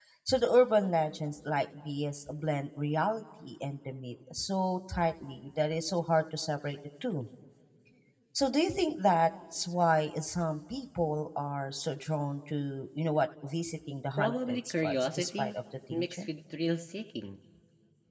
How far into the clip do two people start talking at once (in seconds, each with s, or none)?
14.2 s